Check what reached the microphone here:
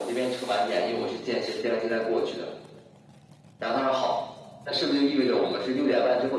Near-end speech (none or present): none